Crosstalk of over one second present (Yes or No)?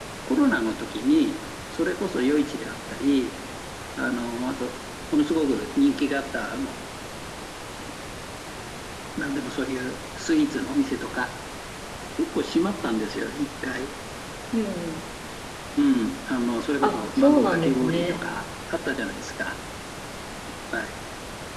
Yes